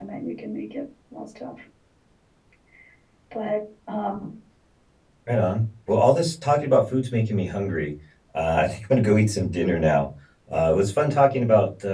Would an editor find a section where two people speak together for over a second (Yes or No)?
No